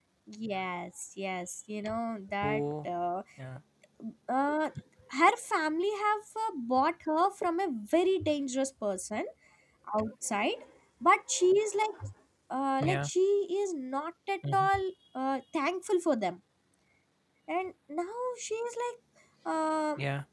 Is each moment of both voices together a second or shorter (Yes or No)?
Yes